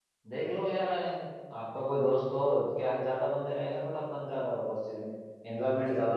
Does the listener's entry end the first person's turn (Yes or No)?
Yes